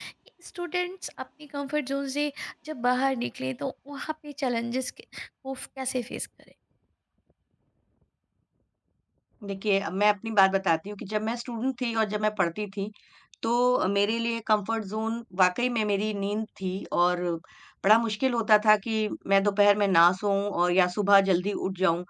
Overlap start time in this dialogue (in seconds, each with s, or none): none